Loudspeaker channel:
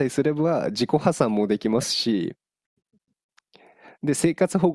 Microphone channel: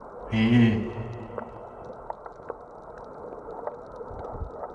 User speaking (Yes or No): Yes